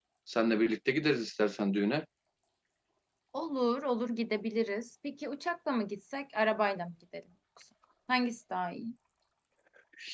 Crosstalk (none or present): none